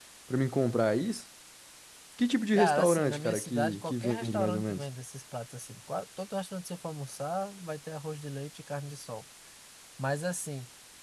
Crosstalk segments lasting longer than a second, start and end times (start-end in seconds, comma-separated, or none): 2.6-4.8